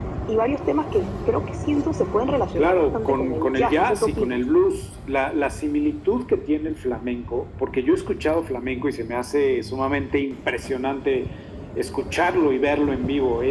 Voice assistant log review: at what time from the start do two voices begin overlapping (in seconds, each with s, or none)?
2.6 s